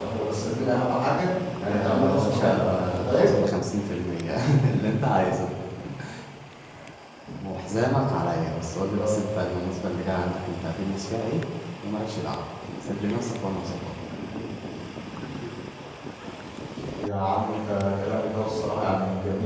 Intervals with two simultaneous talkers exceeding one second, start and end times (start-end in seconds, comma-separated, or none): 1.7-3.3